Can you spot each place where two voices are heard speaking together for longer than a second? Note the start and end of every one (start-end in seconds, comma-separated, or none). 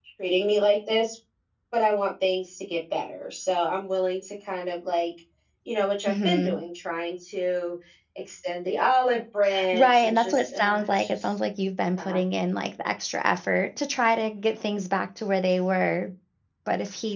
9.7-11.3